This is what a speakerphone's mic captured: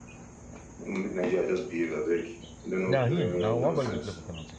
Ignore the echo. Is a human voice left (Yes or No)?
Yes